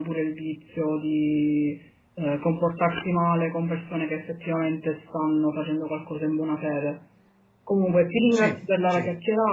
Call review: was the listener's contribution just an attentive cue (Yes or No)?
Yes